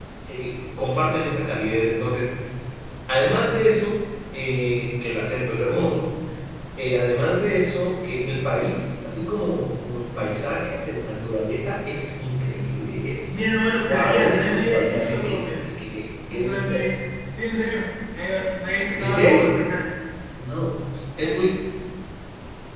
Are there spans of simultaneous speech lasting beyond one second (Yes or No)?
Yes